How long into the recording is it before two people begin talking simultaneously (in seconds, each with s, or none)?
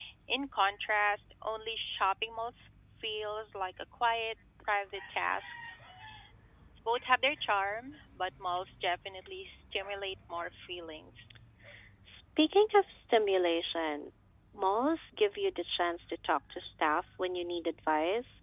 none